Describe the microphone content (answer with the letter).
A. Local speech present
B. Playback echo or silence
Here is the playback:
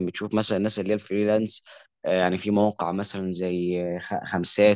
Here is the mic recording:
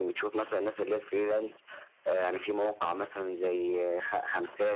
B